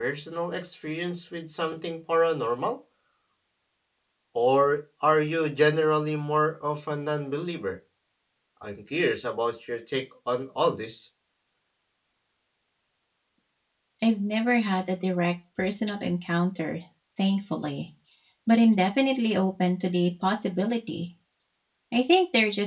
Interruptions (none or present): none